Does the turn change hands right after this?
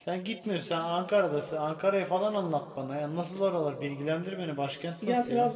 Yes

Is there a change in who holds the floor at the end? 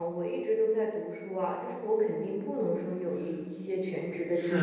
Yes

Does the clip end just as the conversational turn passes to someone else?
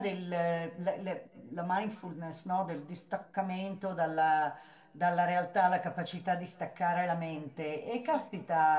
No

